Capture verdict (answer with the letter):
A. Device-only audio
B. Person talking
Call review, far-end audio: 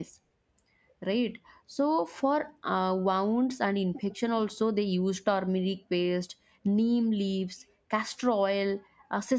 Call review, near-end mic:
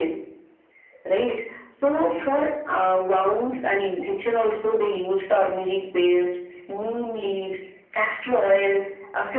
A